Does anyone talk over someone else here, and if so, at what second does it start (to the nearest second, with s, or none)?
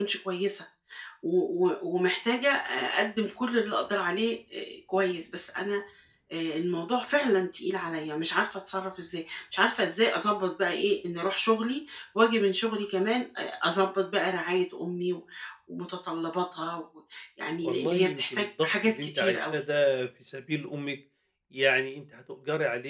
18 s